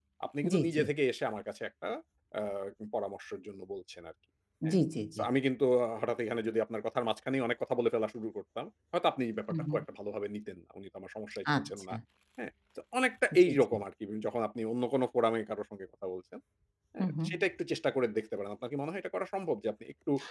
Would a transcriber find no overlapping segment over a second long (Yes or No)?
Yes